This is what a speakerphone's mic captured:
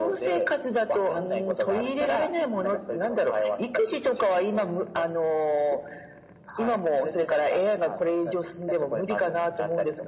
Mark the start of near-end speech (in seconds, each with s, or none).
none